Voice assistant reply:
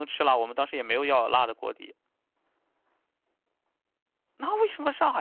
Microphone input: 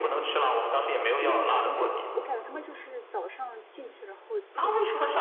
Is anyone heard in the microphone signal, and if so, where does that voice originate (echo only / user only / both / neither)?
both